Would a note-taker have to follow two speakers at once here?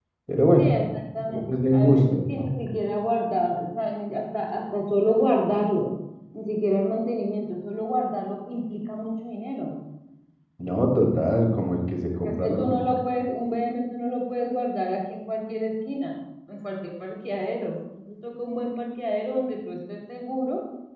Yes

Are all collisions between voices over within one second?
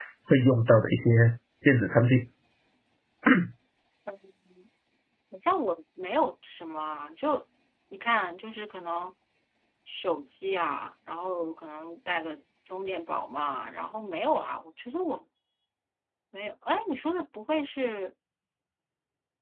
Yes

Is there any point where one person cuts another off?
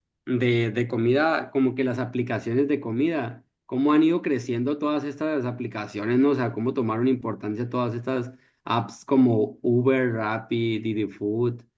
No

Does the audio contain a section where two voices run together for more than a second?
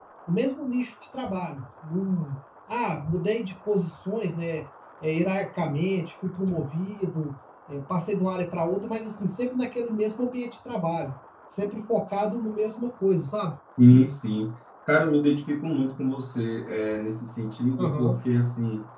No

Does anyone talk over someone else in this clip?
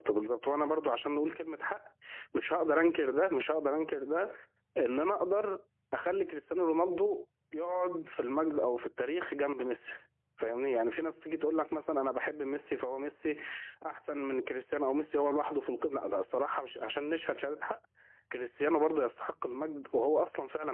No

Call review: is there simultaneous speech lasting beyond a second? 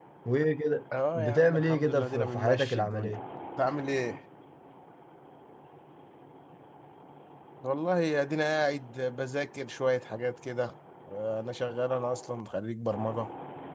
Yes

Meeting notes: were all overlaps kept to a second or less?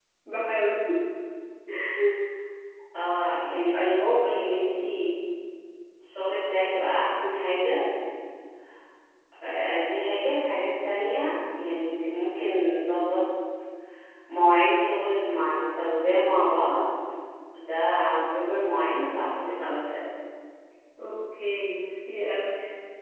Yes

